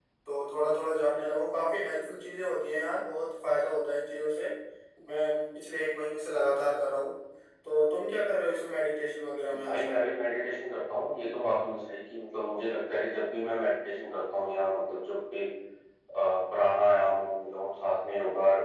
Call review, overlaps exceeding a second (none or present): none